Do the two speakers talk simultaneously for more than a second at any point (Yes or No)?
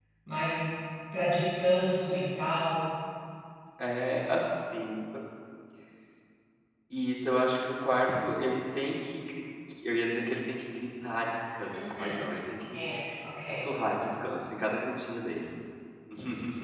No